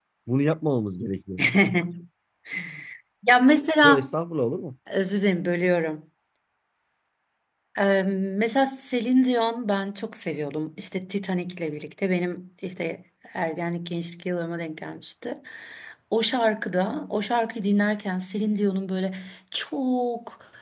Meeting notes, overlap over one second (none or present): none